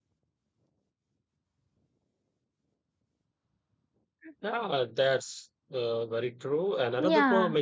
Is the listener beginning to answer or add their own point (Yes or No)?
No